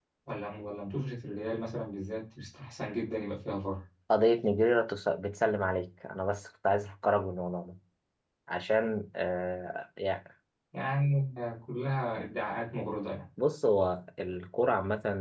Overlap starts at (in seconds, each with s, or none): none